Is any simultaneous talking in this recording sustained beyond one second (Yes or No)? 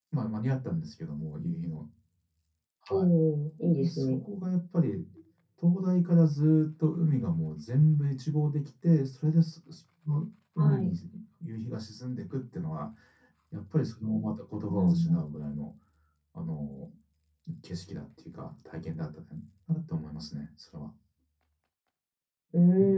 No